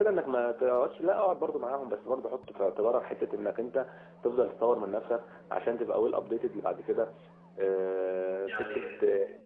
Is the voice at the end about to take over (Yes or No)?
No